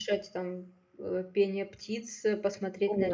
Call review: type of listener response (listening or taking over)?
listening